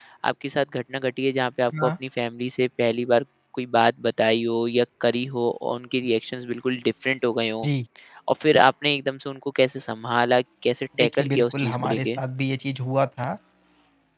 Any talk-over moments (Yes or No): Yes